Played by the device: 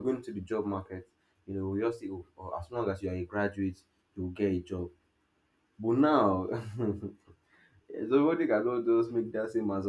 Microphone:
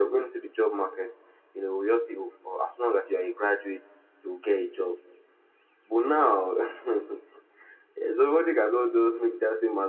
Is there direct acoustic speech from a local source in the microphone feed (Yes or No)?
No